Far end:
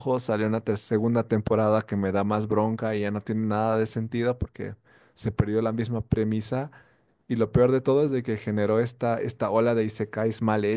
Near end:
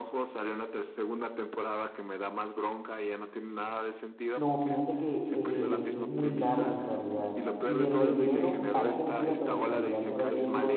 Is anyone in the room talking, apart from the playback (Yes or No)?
Yes